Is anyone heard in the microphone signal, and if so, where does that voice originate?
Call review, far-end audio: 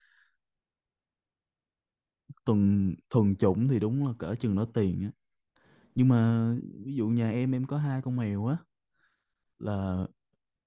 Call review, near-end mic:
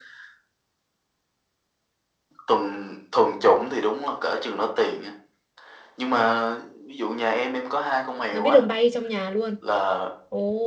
both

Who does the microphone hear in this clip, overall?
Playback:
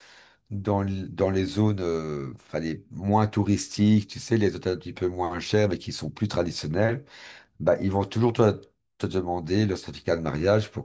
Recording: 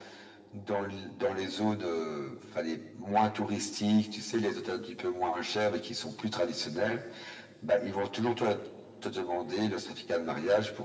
echo only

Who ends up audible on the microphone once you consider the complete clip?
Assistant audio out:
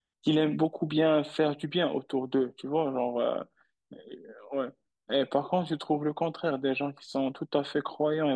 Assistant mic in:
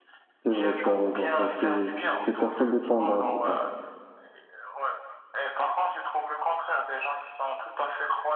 both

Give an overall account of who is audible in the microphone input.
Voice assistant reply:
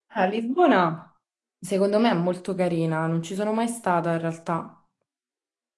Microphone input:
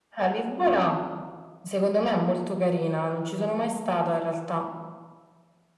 echo only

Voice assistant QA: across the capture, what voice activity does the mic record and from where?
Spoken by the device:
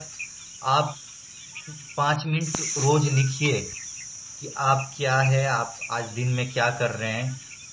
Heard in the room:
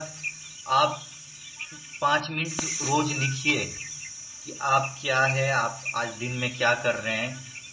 echo only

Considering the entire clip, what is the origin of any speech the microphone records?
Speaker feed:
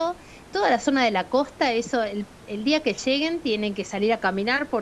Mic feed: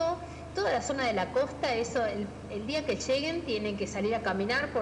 echo only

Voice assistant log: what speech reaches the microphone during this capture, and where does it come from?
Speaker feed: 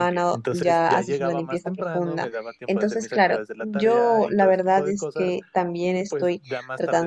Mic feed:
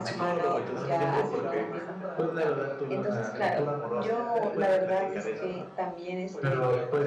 both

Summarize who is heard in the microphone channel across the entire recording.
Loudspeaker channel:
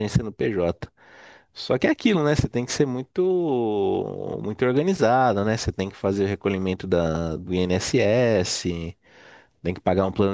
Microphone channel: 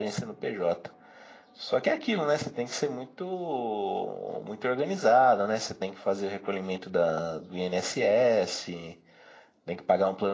echo only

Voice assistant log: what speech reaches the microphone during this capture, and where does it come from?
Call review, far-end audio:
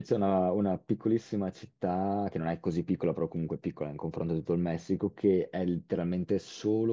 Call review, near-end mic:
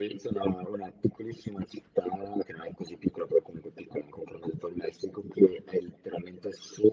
echo only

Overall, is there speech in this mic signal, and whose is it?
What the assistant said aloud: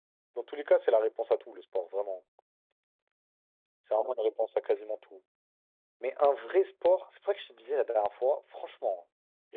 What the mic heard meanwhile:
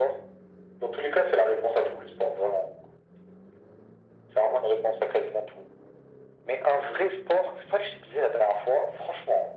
echo only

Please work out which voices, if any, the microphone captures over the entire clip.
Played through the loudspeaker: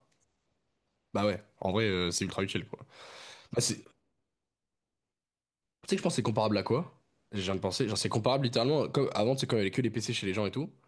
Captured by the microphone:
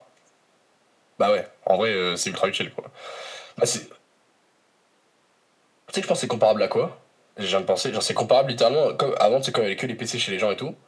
echo only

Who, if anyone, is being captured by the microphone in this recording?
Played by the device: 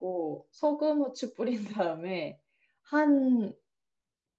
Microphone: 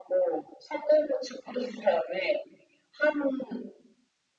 echo only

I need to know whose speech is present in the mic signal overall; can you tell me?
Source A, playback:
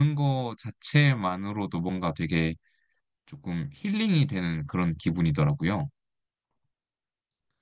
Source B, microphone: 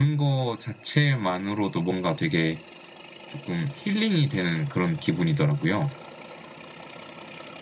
echo only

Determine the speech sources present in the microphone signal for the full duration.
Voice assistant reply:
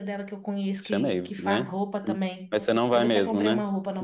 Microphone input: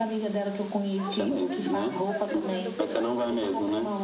both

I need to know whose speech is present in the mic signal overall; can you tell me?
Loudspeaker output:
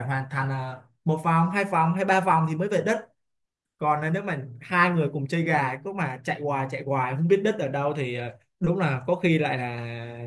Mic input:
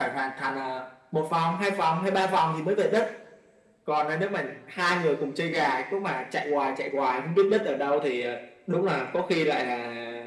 echo only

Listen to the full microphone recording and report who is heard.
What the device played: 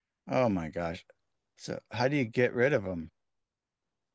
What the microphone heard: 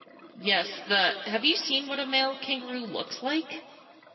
user only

